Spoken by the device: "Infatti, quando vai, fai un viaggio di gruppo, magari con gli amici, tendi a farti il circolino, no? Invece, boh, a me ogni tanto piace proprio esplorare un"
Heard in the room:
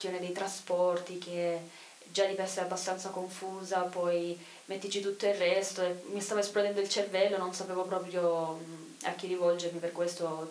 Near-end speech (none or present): present